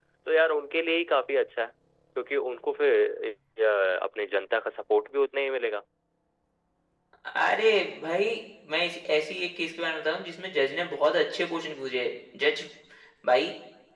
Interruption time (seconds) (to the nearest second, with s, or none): none